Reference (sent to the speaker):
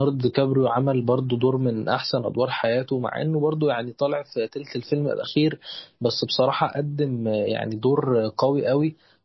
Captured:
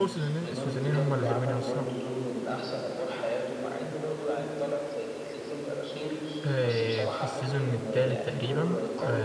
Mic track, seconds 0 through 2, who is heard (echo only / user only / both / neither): both